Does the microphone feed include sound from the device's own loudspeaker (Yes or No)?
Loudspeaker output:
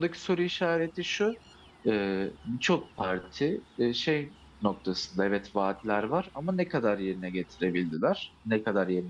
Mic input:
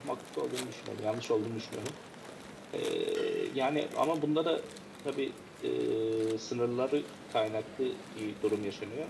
No